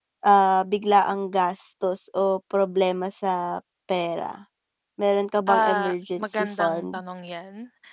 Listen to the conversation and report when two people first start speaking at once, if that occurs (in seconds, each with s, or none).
5.5 s